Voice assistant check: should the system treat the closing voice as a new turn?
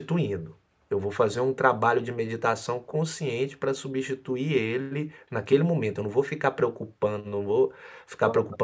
No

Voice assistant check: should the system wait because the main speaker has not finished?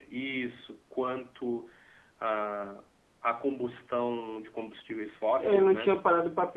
No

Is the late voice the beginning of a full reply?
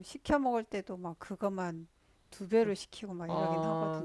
Yes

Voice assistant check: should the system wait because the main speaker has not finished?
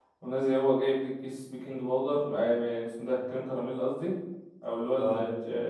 Yes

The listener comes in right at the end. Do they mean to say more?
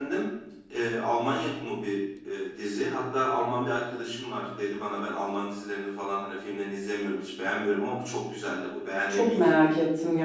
Yes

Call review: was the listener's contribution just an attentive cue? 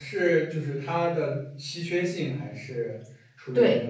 No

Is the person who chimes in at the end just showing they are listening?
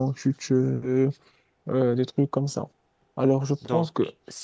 Yes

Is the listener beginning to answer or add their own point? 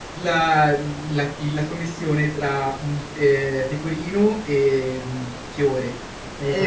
Yes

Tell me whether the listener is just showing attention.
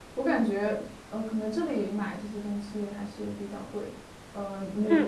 No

